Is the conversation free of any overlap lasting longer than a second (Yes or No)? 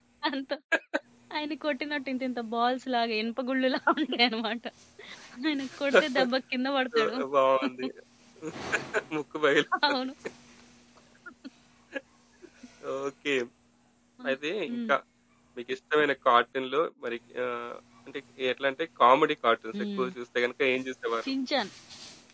Yes